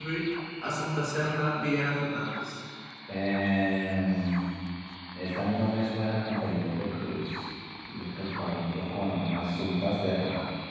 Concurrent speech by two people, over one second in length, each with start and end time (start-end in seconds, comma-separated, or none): none